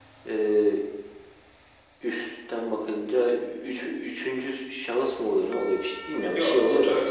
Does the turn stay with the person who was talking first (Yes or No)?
No